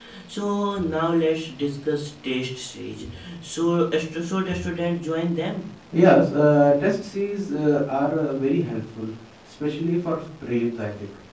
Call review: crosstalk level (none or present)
none